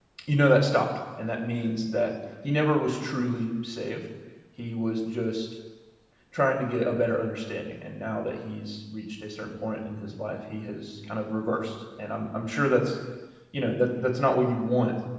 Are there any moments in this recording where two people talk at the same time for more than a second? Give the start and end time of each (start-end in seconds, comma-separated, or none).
none